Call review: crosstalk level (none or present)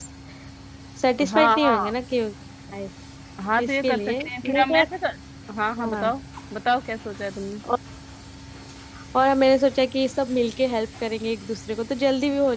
present